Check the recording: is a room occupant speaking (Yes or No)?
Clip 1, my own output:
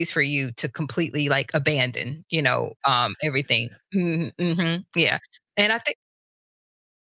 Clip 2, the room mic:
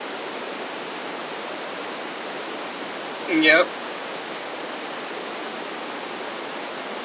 Yes